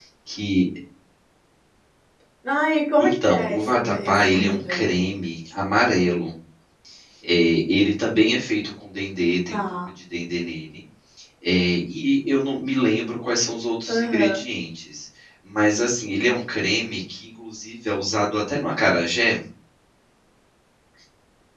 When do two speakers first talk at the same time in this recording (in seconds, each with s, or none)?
3.0 s